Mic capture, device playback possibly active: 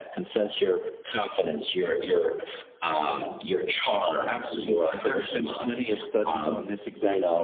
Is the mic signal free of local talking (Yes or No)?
Yes